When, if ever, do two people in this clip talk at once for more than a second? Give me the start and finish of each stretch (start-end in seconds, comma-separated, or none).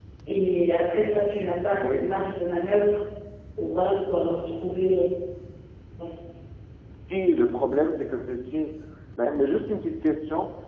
none